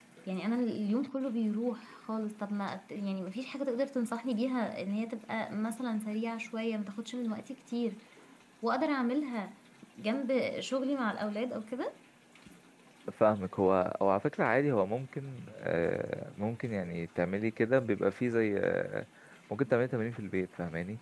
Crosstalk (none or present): none